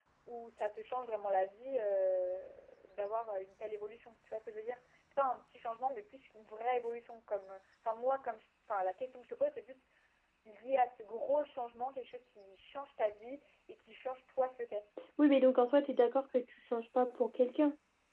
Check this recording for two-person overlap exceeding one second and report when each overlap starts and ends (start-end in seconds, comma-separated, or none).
none